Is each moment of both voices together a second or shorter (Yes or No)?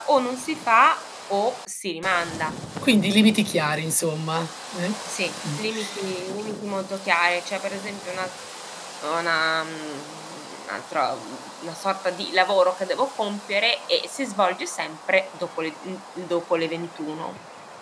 Yes